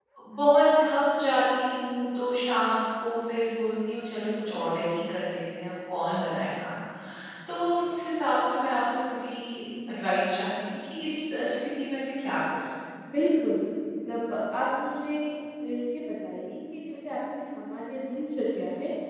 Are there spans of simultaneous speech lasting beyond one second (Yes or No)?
No